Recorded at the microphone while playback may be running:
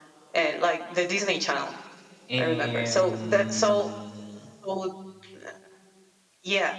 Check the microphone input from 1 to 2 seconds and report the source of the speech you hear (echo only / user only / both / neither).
echo only